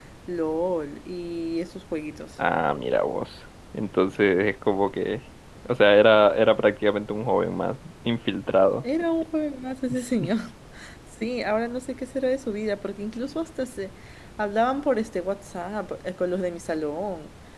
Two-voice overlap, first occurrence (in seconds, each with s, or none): none